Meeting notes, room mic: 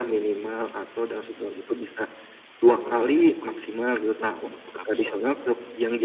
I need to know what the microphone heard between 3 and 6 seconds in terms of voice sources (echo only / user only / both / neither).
both